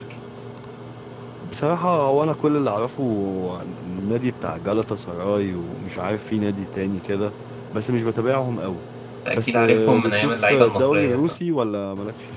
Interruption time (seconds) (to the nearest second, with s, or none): 9 s